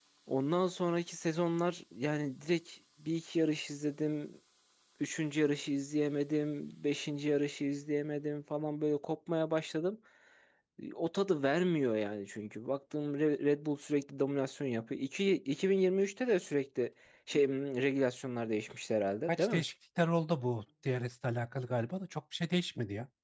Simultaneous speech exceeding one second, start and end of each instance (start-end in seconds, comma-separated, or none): none